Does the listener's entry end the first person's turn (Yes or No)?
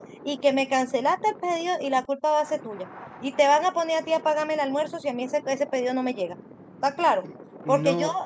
No